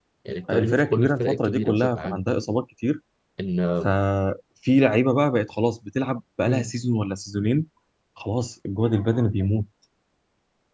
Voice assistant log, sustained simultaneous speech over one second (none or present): present